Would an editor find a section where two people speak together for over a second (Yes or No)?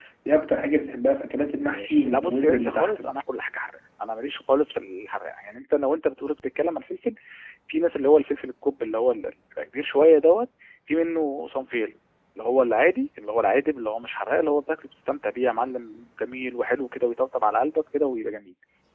Yes